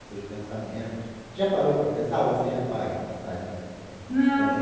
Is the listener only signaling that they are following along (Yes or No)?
No